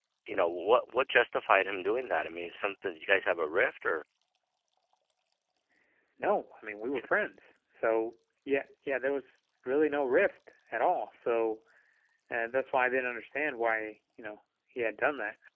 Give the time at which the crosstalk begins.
none

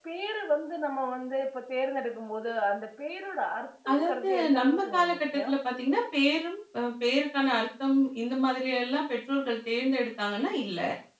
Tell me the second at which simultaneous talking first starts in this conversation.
3.9 s

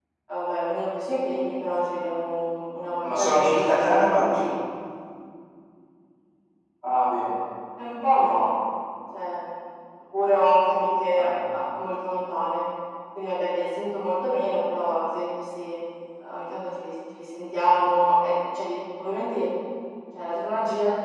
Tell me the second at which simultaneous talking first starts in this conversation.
3.0 s

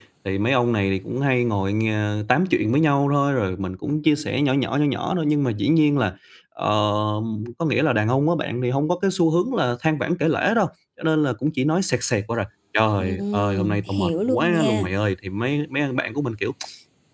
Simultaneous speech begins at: 13.0 s

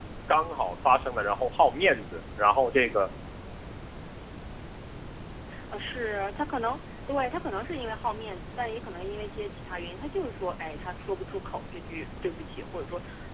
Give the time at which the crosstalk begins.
none

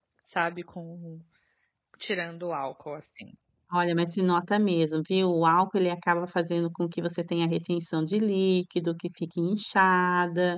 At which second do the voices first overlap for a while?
none

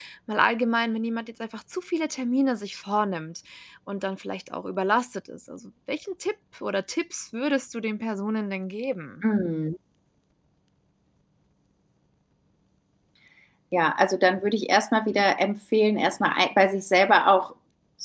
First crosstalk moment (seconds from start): none

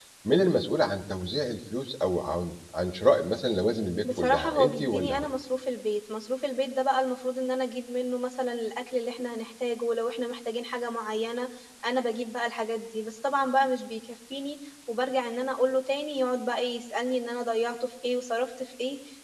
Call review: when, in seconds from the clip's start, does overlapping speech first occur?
4.0 s

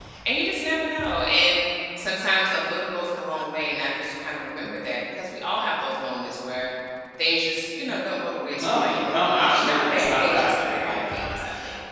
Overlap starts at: 8.6 s

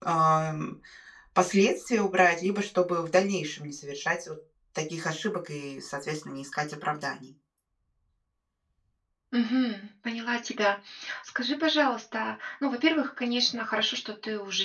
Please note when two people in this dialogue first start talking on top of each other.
none

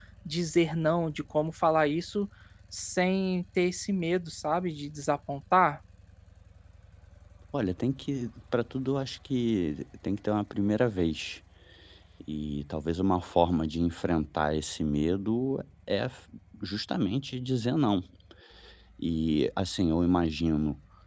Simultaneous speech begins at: none

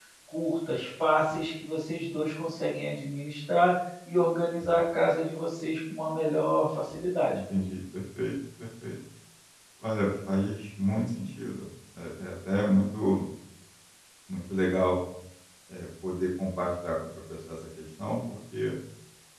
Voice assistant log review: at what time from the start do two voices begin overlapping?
none

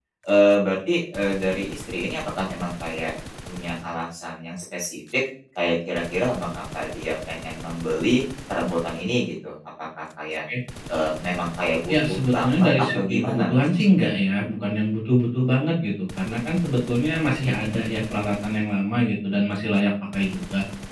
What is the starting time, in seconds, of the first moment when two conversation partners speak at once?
11.9 s

